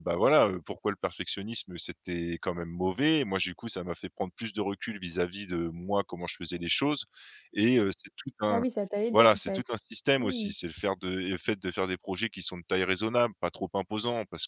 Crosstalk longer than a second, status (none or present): none